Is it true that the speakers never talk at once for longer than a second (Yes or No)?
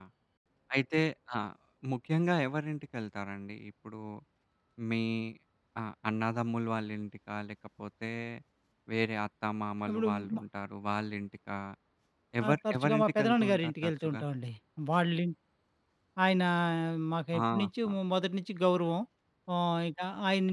No